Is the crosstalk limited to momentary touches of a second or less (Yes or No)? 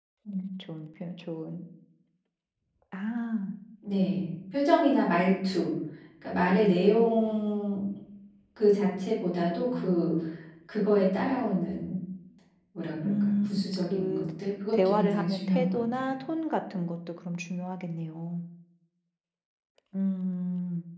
No